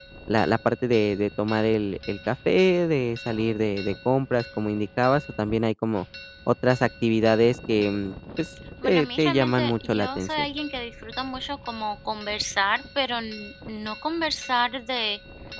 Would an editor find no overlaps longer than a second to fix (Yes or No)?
No